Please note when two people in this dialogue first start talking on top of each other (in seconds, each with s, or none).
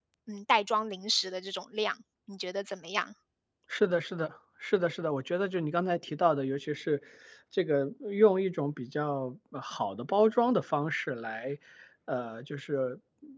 none